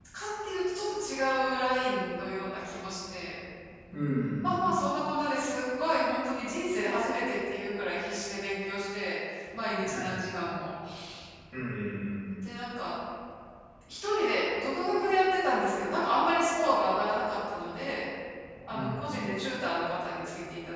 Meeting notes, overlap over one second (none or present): none